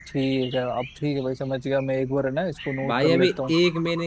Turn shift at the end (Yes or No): Yes